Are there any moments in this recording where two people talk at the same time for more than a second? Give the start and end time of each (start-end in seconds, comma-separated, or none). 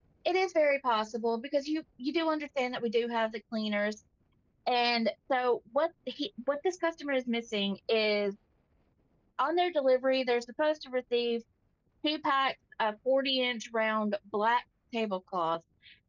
none